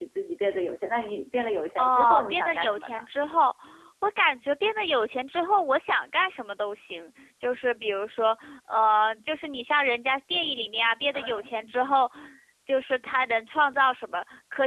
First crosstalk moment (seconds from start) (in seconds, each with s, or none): 1.8 s